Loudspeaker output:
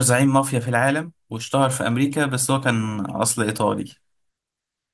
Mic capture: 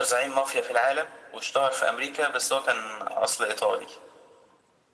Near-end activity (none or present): none